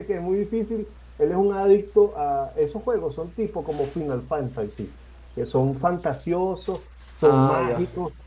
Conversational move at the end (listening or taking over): listening